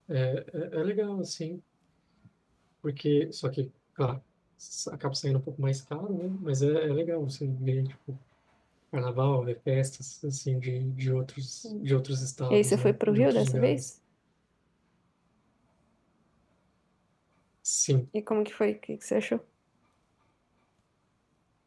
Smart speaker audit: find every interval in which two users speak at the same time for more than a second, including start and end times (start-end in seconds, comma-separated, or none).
12.5-13.9